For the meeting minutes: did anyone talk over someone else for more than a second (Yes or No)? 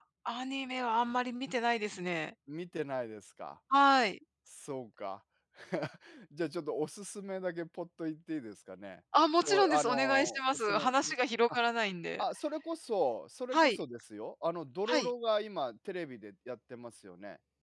Yes